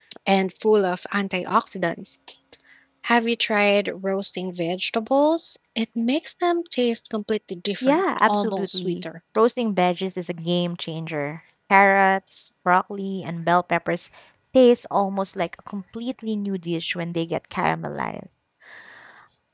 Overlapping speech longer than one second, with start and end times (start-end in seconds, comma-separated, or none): 7.8-9.0